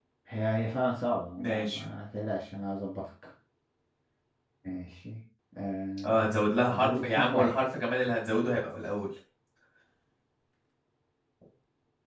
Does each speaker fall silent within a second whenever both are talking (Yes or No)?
No